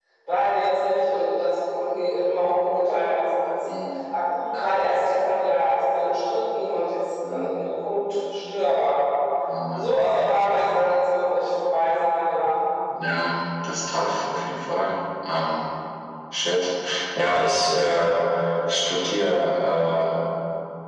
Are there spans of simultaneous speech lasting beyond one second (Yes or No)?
No